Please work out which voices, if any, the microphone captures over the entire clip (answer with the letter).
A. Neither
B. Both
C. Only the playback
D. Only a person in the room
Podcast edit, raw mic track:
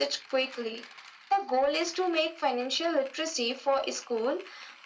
C